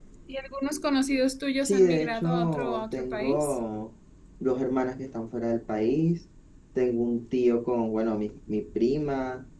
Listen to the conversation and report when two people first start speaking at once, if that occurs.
2 s

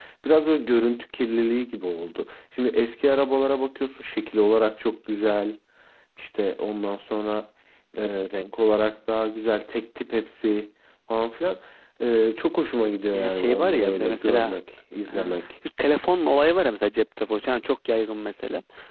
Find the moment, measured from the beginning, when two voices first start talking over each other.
13 s

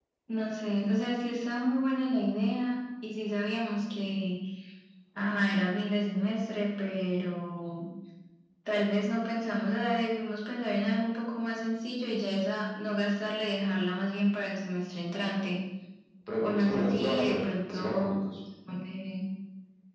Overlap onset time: 16 s

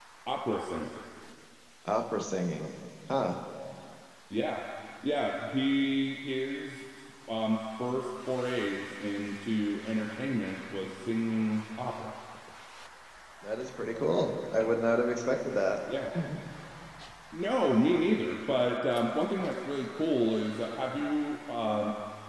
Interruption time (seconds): none

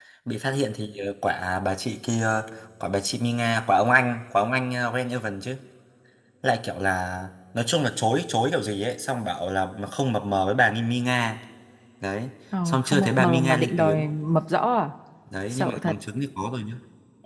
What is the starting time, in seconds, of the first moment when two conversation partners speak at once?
13 s

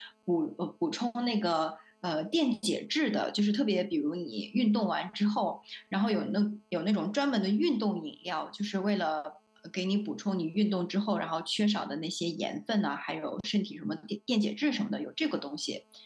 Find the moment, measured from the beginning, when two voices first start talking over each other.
none

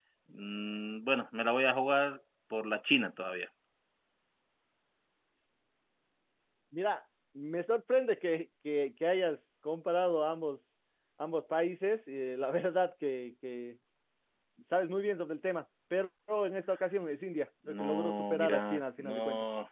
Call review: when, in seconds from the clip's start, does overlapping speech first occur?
18 s

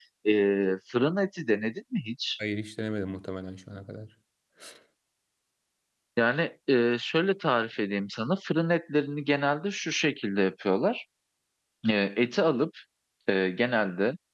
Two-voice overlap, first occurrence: none

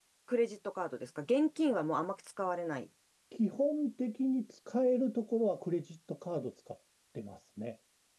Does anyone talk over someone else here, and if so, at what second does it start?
none

